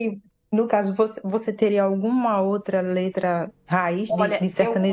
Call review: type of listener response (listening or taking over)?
taking over